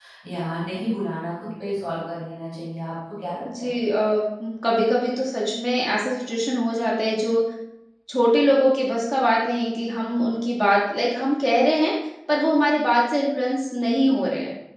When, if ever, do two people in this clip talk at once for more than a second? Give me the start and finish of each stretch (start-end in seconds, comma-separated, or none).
none